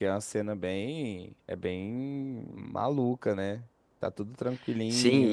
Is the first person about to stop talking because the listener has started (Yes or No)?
Yes